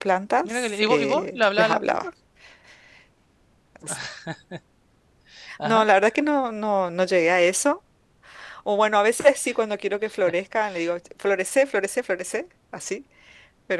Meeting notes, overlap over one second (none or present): present